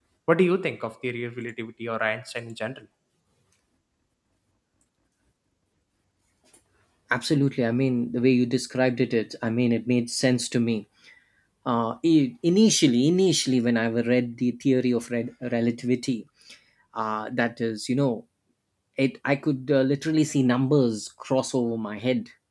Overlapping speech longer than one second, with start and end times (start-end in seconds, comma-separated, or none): none